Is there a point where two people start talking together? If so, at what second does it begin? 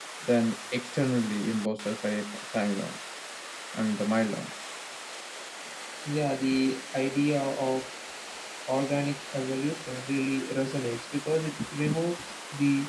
none

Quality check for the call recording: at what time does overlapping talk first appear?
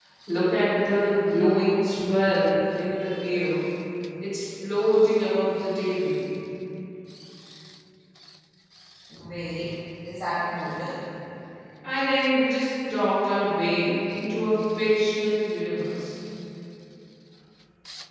none

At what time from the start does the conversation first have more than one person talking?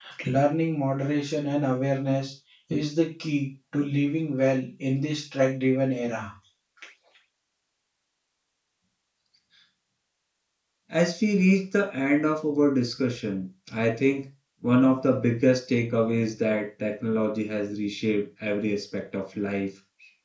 none

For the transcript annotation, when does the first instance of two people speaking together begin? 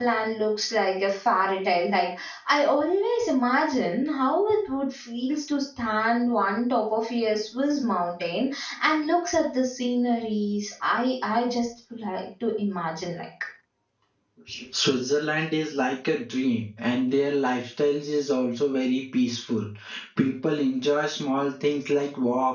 none

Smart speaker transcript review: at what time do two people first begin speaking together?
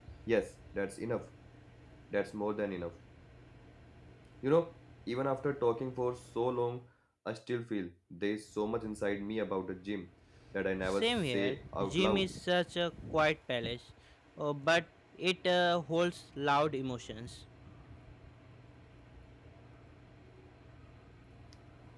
10.9 s

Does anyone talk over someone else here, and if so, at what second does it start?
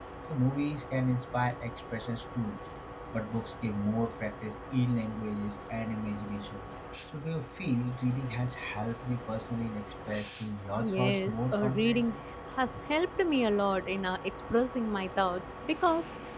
10.8 s

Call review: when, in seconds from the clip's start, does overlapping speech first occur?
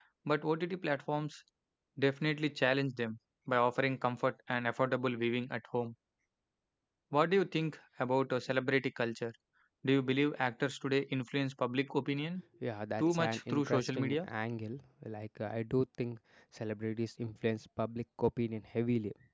13.0 s

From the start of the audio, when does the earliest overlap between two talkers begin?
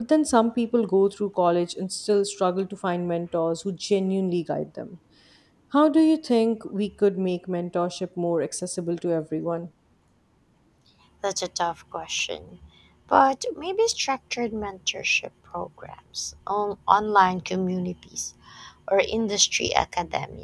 none

